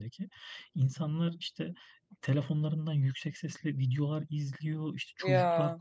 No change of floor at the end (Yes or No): Yes